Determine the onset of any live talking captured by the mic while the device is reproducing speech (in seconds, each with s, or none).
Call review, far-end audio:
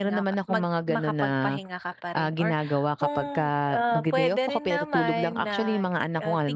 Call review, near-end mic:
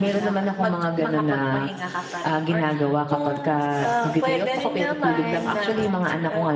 none